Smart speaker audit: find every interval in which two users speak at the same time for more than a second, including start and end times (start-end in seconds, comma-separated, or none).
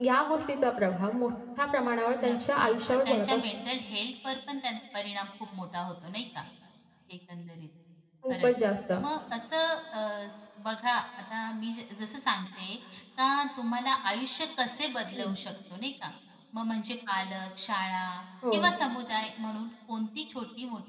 2.2-3.5